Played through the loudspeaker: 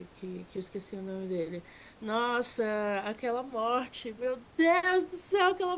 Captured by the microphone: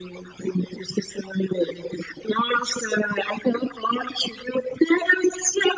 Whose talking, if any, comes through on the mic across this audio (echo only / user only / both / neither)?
echo only